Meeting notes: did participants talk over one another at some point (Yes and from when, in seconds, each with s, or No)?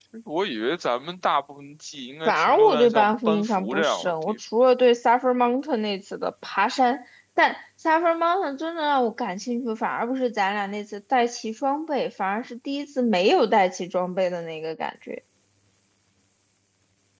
Yes, from 2.2 s